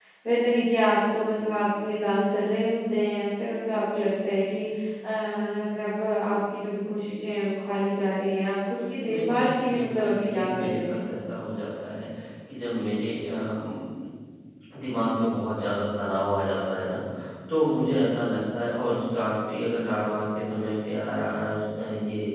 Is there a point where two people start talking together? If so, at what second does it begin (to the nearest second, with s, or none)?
9 s